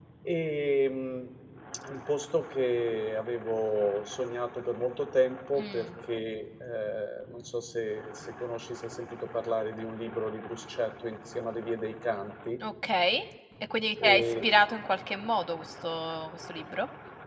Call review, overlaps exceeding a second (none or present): none